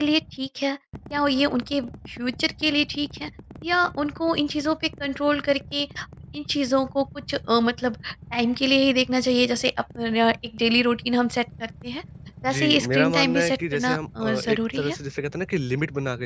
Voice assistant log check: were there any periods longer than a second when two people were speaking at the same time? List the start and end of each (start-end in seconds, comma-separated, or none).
12.4-14.9